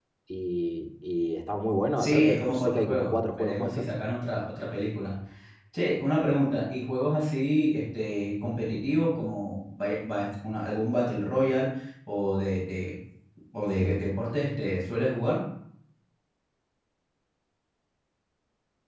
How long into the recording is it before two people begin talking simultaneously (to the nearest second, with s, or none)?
2 s